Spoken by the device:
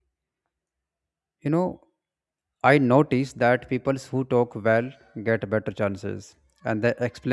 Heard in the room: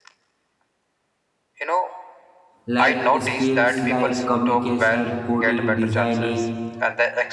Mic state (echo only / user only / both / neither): both